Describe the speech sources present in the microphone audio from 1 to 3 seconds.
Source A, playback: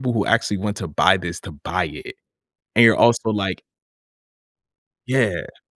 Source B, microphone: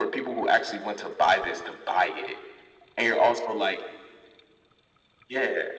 echo only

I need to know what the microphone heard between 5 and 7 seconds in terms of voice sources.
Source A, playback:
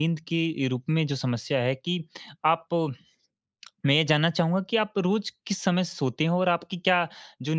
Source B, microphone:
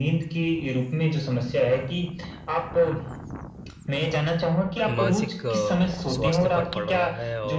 both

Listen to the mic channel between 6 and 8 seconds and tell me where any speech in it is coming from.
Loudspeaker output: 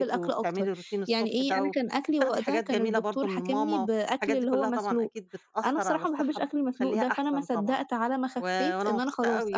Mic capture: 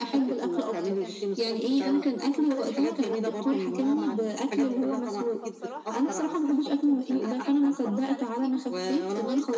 both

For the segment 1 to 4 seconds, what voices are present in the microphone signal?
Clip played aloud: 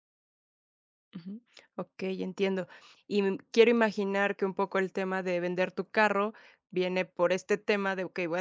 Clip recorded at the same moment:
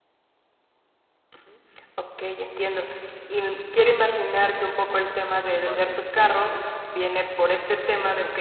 echo only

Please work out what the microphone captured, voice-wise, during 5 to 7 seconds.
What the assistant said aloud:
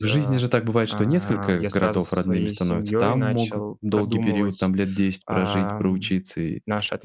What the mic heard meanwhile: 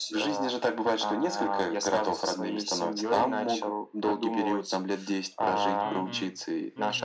both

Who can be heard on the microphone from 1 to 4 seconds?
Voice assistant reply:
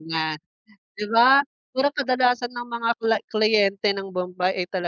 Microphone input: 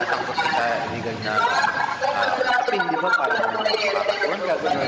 both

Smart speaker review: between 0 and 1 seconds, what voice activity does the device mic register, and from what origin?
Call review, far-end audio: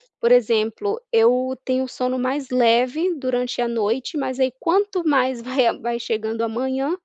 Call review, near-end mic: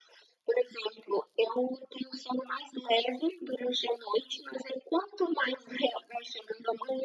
echo only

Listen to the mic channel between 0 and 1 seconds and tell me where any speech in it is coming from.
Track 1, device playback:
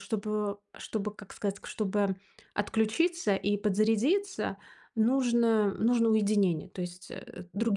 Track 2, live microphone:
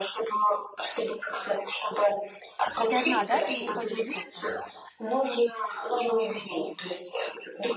echo only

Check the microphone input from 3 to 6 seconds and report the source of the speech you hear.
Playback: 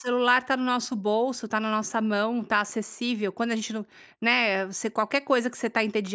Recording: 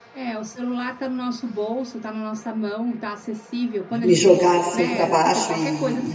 both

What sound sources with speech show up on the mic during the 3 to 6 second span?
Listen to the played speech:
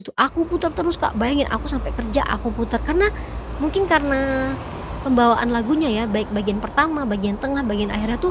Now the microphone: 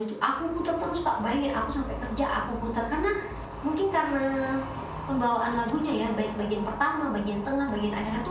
echo only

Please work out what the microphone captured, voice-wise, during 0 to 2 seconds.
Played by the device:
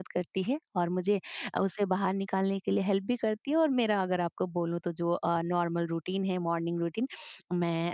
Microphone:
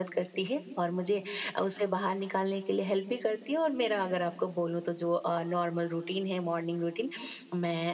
echo only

